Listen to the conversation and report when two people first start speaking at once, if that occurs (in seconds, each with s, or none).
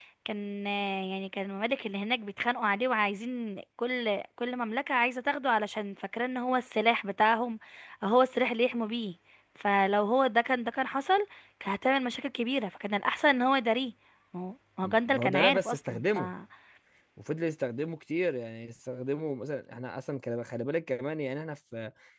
14.8 s